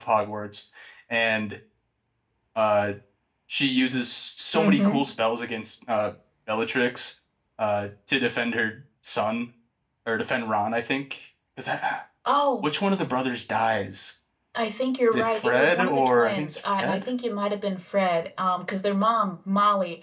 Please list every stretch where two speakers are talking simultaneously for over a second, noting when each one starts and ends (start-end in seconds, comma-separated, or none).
15.1-17.0